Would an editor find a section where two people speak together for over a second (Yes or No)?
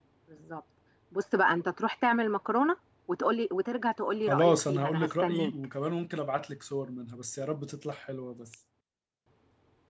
Yes